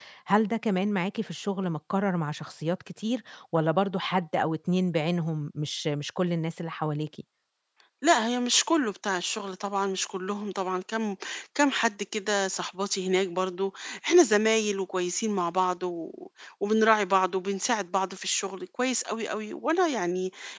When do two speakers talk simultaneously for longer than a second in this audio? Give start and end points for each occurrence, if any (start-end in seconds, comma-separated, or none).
none